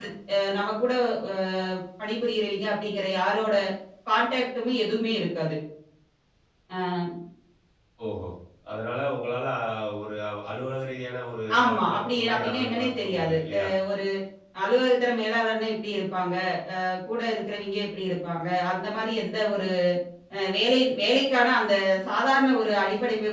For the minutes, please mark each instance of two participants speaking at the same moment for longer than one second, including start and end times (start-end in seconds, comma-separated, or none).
11.7-13.7